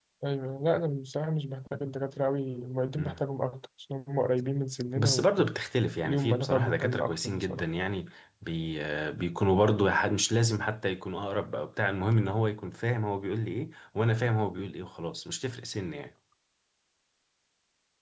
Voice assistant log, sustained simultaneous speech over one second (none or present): present